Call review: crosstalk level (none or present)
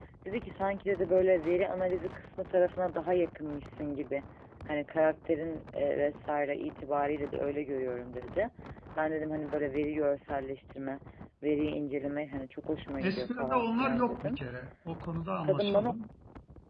present